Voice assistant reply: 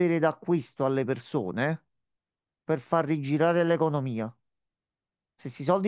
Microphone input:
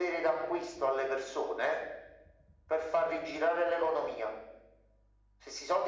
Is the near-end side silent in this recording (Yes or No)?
Yes